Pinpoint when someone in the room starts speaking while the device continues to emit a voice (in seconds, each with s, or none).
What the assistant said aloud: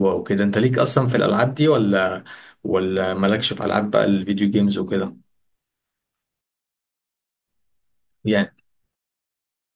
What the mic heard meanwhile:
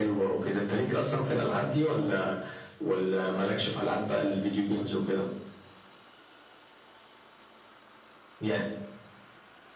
none